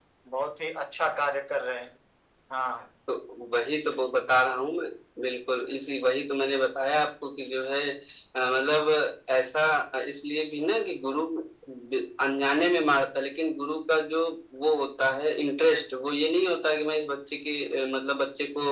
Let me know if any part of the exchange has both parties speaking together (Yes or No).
No